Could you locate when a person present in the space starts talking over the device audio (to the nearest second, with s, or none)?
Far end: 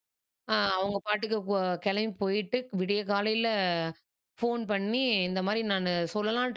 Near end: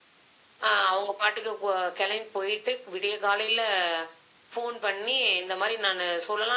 none